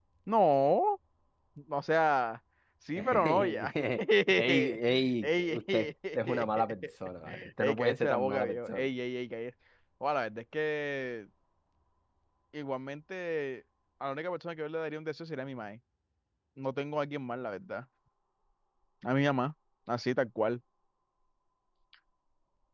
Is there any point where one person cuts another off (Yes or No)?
Yes